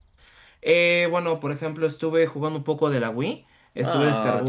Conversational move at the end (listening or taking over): taking over